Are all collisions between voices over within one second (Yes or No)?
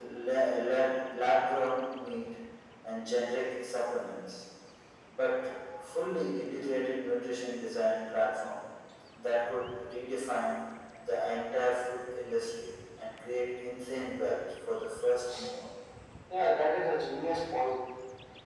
Yes